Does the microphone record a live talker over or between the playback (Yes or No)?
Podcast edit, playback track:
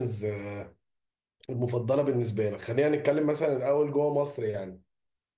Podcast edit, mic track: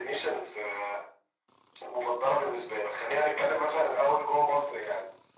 No